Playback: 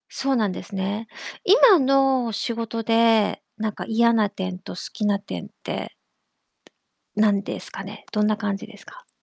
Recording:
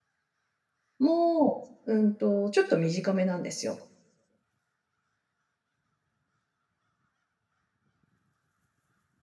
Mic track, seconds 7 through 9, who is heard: neither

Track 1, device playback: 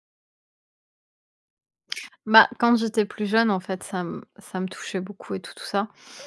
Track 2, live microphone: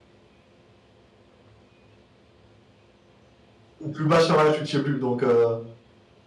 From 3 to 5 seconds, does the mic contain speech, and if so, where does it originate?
user only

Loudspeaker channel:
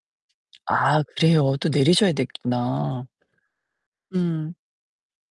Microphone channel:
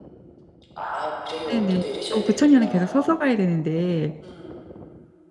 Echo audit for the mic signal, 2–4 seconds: both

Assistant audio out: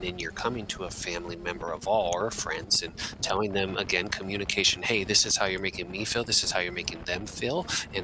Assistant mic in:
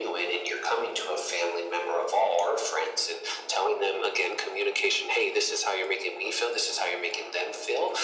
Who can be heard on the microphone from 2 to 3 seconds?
echo only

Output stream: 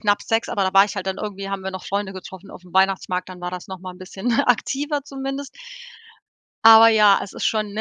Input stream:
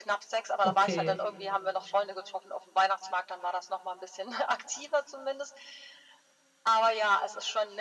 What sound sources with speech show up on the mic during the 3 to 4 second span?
echo only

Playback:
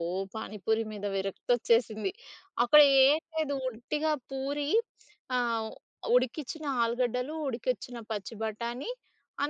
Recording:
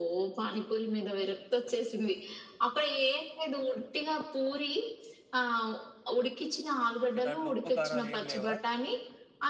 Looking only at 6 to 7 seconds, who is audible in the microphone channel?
echo only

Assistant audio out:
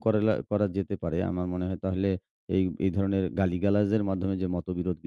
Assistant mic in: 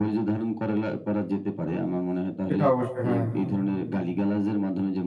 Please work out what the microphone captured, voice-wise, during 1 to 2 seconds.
echo only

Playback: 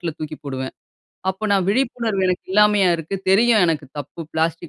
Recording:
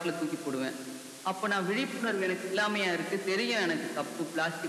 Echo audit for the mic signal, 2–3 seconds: echo only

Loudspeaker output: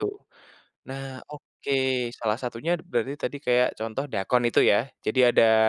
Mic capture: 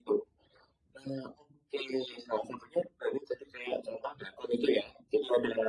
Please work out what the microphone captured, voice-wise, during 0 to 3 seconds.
echo only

